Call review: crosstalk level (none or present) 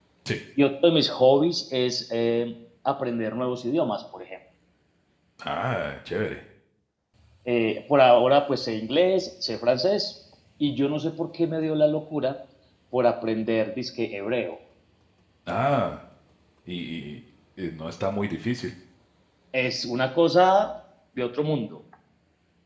none